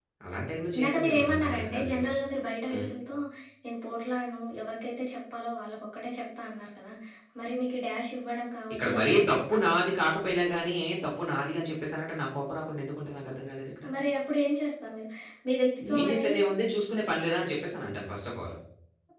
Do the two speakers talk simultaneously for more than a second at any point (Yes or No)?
Yes